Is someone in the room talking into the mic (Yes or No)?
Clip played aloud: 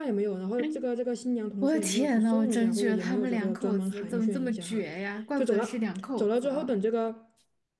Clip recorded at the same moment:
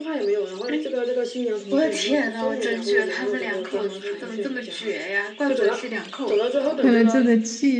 Yes